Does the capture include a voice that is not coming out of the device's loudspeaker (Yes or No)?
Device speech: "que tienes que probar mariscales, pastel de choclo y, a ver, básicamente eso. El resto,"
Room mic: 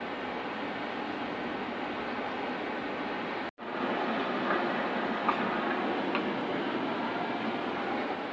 No